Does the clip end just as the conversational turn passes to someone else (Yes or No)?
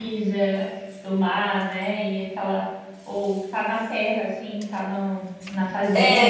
Yes